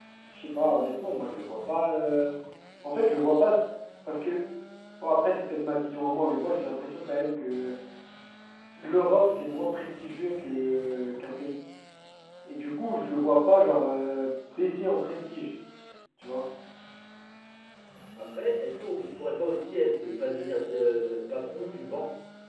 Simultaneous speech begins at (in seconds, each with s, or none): none